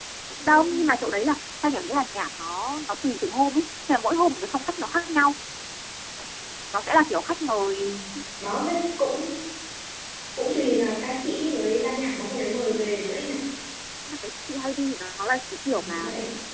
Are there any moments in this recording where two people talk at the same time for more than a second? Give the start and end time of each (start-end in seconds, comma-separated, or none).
none